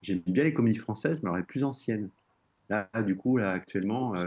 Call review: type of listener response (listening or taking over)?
listening